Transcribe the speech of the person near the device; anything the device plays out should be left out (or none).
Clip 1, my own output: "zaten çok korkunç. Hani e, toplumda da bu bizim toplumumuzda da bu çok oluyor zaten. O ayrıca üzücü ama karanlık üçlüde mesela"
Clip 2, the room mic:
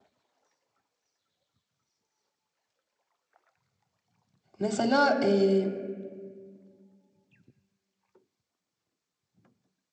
mesela e,